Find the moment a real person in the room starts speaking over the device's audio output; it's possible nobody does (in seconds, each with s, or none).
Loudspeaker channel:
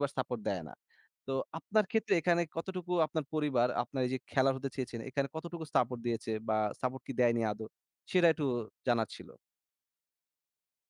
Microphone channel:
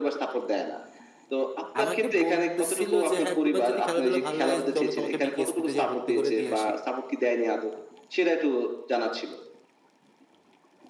1.8 s